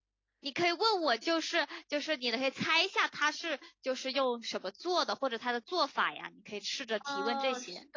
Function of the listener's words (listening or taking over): taking over